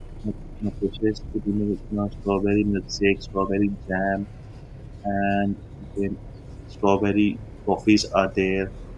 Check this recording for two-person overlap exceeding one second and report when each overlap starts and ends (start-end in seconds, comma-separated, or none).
none